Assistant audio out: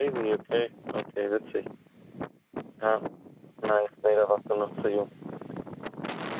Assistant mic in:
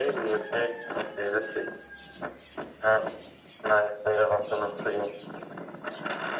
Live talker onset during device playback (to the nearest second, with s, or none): none